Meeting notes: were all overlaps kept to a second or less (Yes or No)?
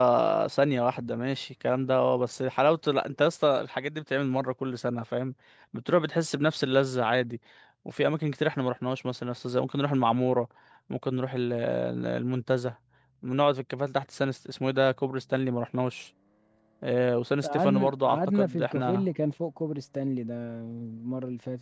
No